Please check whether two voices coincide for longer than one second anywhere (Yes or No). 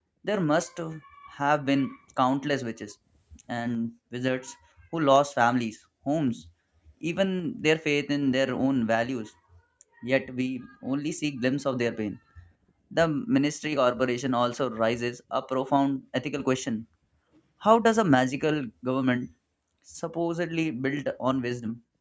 No